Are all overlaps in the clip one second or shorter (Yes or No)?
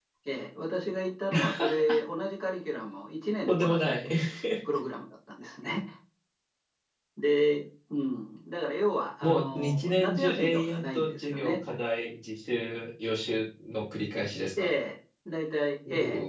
No